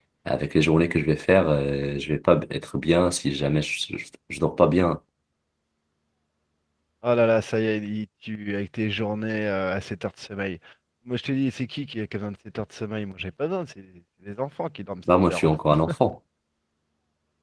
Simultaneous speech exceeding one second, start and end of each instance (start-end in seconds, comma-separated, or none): none